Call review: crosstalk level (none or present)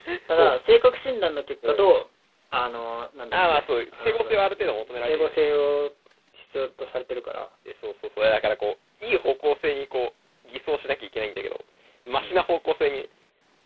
present